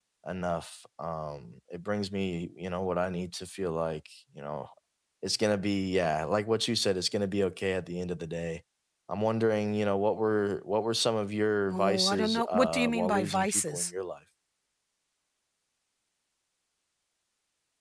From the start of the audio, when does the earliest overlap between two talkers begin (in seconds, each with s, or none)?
11.7 s